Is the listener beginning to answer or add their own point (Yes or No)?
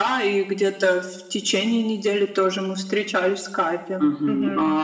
Yes